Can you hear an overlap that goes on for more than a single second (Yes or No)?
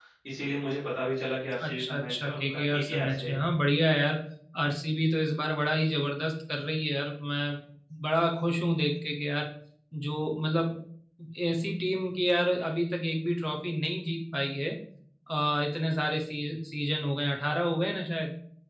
Yes